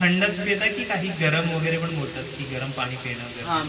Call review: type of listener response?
taking over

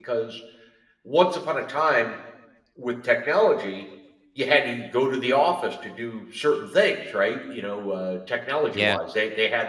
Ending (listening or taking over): listening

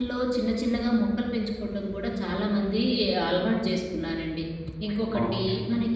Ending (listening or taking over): listening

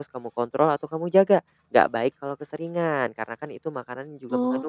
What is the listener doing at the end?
listening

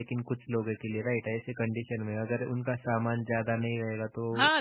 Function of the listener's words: taking over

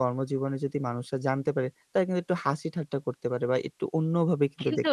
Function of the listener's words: taking over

